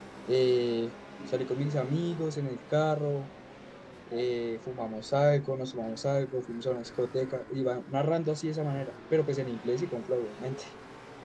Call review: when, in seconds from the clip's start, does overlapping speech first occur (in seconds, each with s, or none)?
none